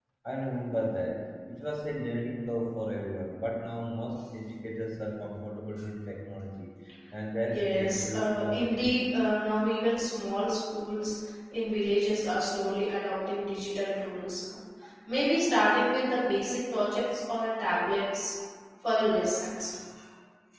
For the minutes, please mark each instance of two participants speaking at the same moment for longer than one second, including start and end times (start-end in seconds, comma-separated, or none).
7.4-9.1